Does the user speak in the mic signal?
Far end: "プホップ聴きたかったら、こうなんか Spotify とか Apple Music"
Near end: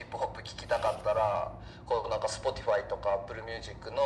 No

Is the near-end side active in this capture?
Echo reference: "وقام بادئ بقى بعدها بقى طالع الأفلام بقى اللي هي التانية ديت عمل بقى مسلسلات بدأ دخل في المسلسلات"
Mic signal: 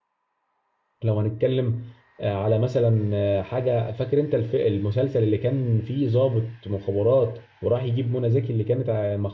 Yes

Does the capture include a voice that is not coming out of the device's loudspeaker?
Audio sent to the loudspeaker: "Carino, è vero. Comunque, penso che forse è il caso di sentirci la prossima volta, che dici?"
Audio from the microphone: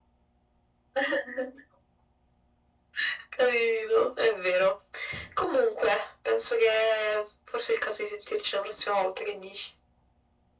No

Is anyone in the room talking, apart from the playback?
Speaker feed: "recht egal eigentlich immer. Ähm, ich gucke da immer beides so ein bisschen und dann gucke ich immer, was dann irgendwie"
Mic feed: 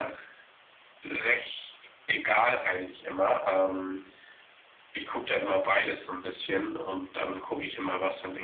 No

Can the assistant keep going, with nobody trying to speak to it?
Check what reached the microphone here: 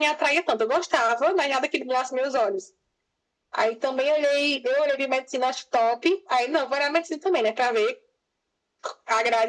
Yes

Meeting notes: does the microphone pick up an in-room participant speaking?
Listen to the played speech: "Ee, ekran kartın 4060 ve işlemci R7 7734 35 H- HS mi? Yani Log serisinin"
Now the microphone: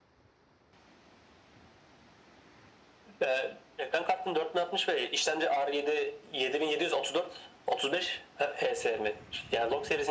No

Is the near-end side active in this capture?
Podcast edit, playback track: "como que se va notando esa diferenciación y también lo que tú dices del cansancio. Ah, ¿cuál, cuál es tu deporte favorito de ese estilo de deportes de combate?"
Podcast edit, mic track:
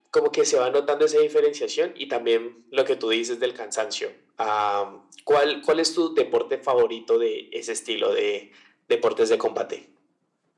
No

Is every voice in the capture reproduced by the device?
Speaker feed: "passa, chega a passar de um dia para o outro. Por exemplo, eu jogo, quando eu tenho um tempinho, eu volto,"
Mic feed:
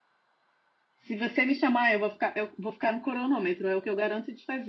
No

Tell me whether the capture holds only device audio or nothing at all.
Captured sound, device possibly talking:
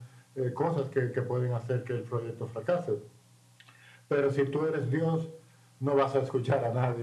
Yes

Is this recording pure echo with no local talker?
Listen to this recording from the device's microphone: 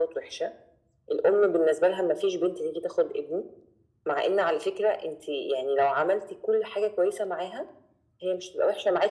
Yes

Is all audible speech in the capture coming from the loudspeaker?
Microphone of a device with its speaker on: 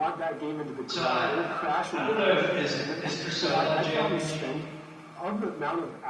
No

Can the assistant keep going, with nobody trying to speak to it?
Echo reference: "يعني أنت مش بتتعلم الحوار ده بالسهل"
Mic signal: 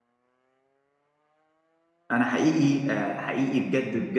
No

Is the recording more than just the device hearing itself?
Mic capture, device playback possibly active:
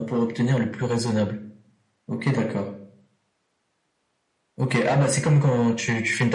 No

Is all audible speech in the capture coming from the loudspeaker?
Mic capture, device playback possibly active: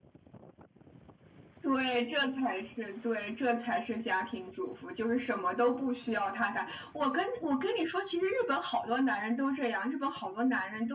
Yes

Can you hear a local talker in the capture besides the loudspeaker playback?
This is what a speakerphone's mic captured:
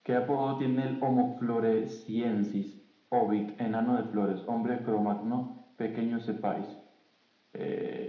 No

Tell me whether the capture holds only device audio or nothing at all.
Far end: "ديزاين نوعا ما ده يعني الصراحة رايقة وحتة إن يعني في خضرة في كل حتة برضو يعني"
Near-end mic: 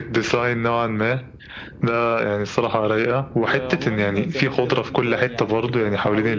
No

